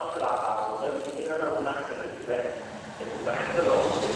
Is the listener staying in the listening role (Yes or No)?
Yes